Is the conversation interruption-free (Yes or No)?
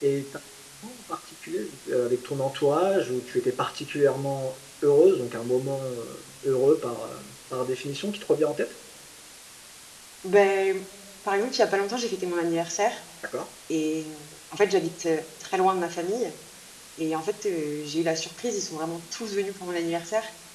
Yes